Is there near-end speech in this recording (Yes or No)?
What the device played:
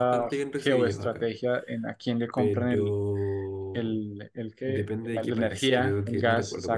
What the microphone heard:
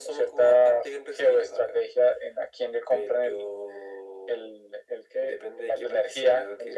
No